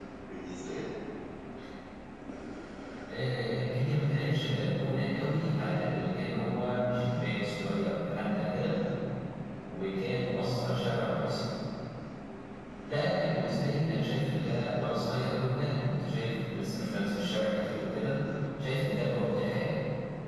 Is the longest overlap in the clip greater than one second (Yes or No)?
No